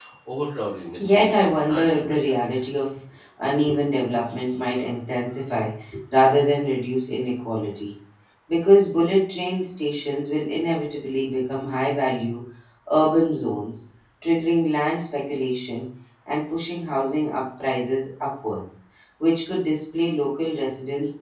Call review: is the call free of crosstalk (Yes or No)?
No